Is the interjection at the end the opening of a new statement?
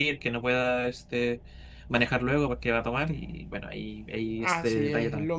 Yes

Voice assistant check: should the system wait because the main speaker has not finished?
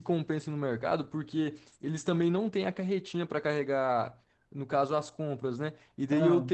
Yes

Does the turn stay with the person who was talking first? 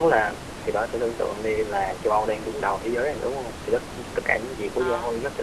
Yes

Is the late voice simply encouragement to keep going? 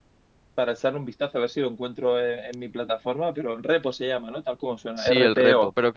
No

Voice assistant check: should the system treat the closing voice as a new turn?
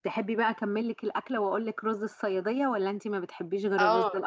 Yes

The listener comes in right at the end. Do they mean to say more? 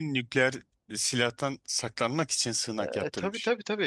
Yes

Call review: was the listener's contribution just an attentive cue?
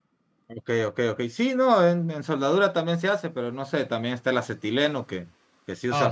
Yes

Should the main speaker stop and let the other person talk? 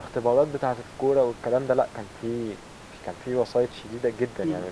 Yes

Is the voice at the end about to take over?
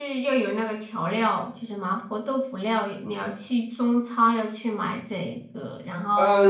Yes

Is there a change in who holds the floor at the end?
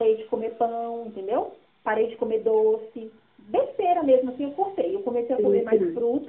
Yes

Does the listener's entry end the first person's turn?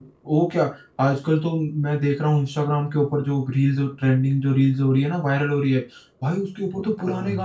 No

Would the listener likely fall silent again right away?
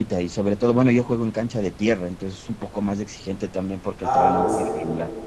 No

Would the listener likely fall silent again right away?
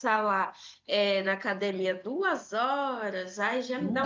Yes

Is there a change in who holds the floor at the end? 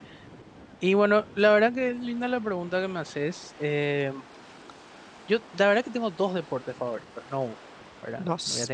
No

